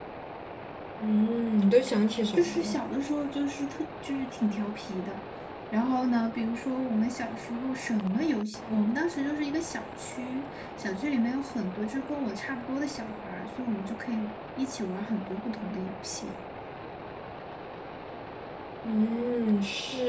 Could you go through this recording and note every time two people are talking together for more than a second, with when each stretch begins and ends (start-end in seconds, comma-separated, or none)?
none